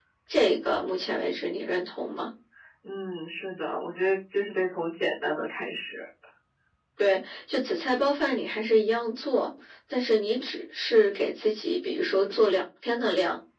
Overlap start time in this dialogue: none

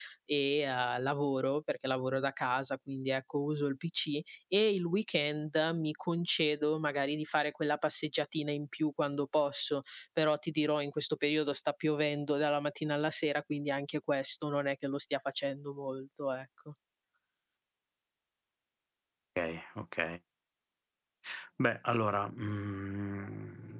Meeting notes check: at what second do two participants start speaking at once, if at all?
none

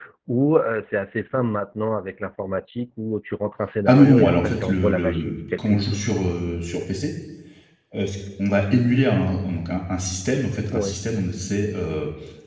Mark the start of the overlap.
3.9 s

